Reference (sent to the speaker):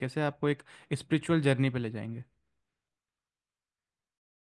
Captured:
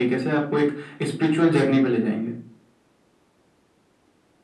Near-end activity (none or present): none